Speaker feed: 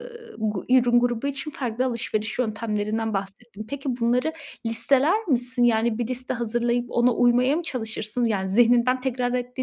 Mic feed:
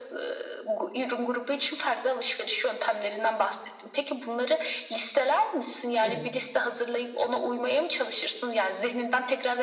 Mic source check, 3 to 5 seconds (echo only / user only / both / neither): echo only